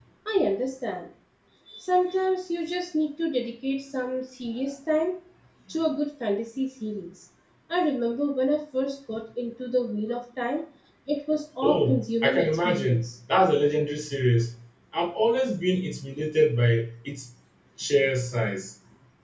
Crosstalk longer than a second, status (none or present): present